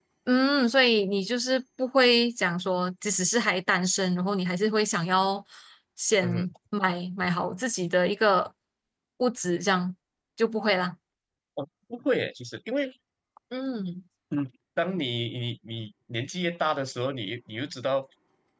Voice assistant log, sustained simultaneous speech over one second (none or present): none